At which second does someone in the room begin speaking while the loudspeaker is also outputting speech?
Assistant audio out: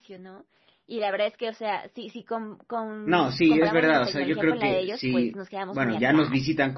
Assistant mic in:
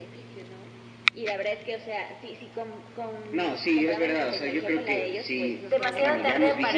6 s

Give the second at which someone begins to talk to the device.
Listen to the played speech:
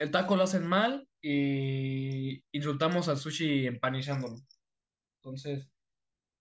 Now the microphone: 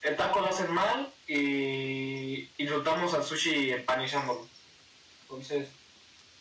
none

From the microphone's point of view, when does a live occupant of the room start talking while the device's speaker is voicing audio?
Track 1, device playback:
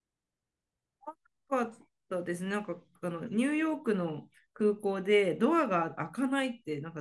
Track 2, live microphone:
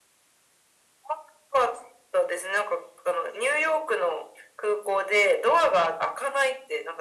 none

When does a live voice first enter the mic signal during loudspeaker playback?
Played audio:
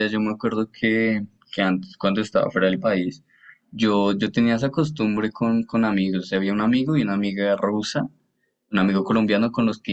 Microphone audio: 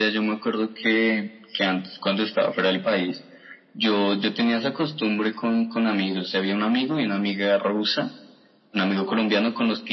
none

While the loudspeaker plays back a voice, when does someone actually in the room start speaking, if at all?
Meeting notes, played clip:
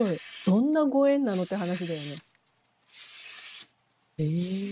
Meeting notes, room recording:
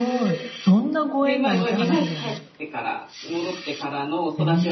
1 s

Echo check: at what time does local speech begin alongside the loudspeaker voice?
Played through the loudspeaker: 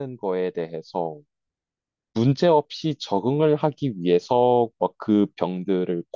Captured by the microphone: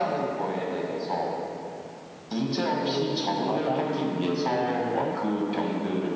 3 s

